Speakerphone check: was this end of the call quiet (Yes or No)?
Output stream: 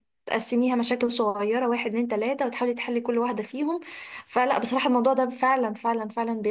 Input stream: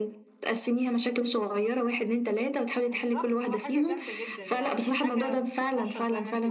No